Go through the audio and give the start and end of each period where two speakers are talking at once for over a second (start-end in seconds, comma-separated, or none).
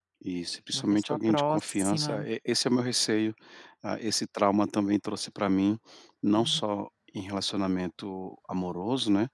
0.7-2.3